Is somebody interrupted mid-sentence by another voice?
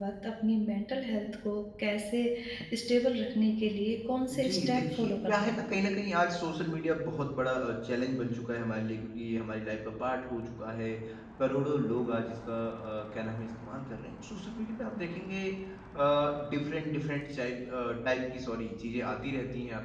Yes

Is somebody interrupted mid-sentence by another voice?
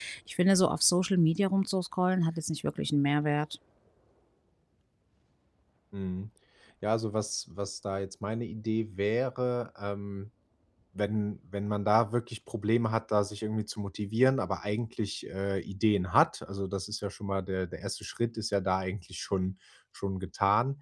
No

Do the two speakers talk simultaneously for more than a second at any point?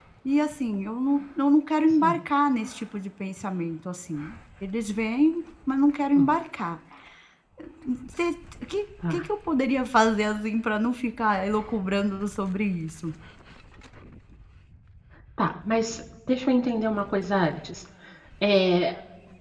No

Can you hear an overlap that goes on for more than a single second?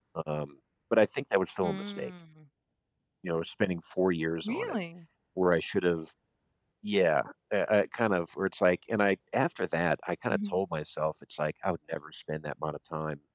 No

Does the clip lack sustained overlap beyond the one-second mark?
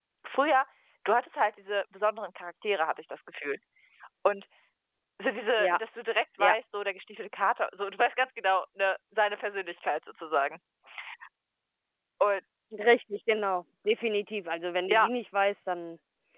Yes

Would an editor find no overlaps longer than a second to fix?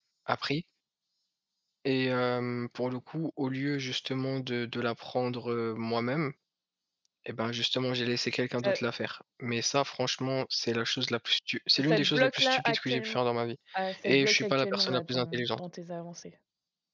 No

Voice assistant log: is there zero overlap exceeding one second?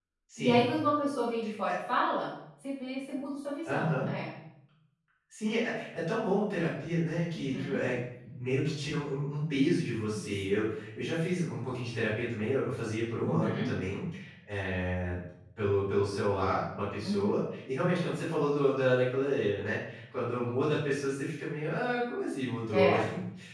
Yes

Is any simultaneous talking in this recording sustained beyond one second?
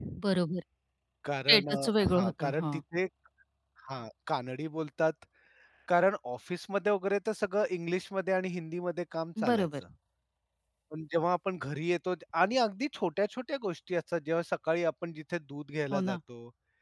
Yes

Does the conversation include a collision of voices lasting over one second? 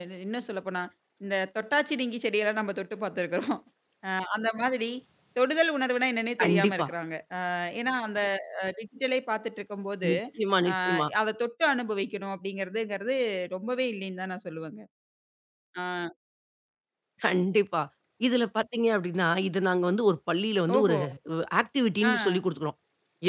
No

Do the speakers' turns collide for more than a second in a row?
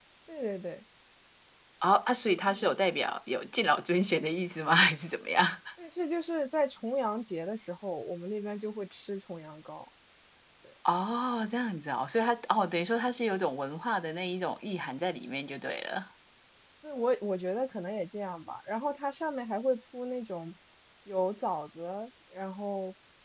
No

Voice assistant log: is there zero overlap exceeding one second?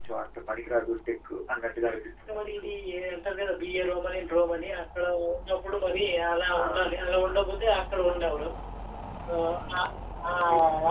Yes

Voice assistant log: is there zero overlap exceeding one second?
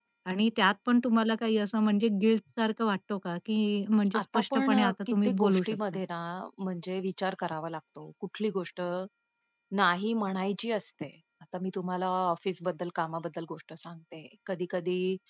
No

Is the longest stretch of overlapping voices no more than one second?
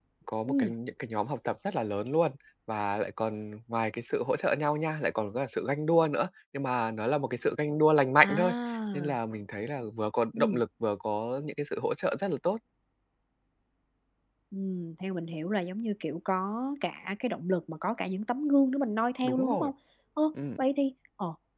Yes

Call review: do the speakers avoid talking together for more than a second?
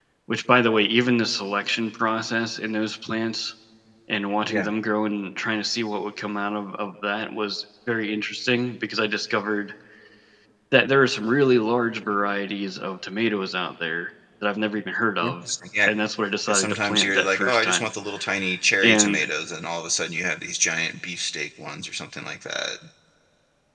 No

